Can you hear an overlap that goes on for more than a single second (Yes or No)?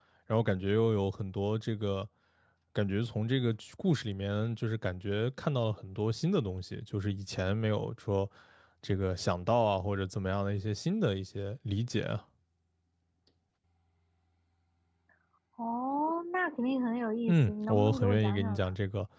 Yes